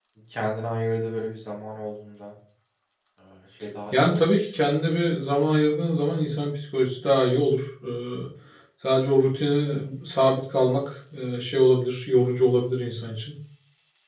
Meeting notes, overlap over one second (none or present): present